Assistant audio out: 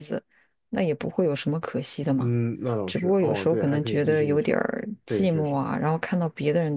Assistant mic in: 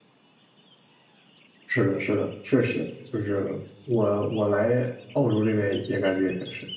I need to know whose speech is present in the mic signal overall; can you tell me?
user only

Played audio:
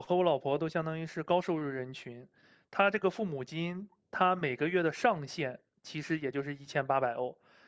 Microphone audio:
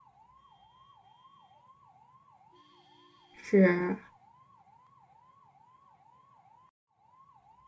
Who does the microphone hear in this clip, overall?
user only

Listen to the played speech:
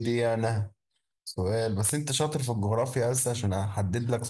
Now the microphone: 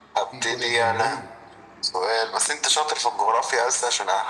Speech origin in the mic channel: both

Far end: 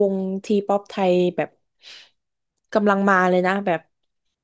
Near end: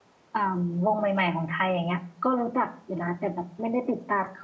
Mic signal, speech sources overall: user only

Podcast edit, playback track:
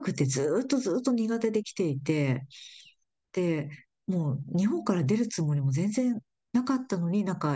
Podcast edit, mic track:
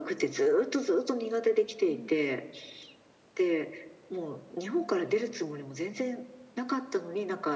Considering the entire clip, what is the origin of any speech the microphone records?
both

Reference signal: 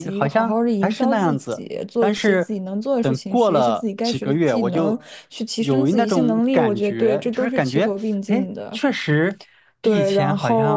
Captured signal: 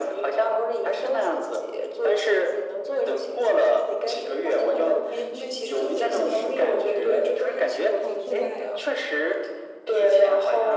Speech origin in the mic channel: both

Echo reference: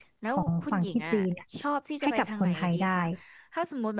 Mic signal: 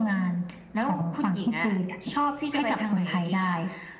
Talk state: echo only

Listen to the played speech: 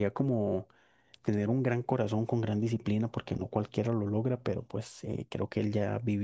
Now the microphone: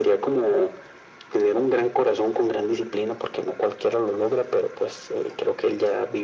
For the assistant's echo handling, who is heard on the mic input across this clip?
echo only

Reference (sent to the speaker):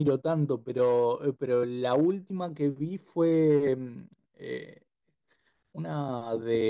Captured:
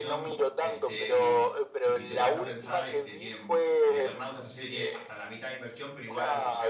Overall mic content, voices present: both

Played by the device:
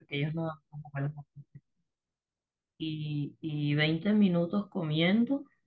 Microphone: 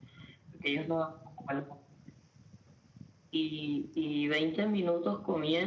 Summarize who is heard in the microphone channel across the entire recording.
echo only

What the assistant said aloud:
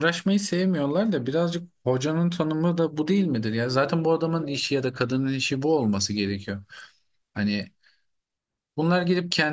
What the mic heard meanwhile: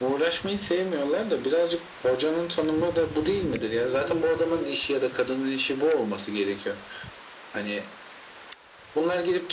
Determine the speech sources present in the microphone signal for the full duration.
echo only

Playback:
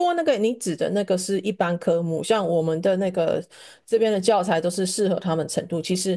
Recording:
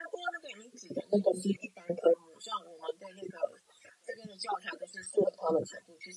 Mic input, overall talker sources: echo only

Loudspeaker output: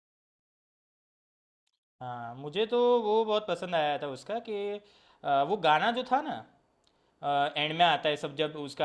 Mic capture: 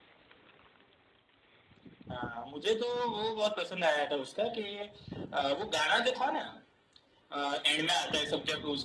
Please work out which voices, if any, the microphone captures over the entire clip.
echo only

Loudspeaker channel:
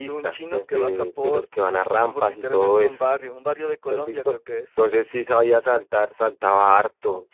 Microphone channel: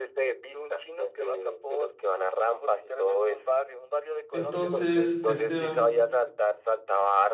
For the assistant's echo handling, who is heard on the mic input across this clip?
both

